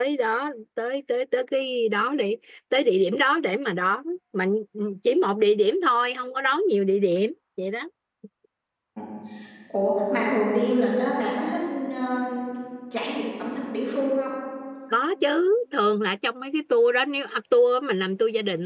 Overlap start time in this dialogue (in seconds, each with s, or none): none